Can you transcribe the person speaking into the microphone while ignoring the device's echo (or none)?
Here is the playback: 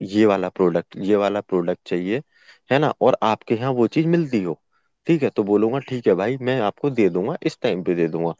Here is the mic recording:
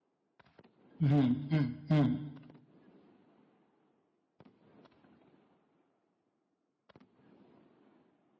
हम्म हम्म हम्म